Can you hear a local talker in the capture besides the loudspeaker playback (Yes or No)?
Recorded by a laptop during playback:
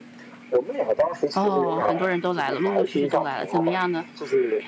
Yes